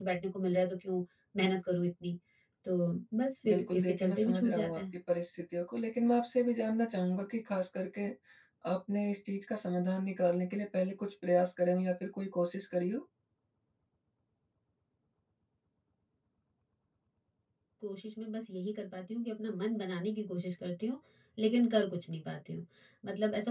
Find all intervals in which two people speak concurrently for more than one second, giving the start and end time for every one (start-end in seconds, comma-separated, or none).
3.5-4.8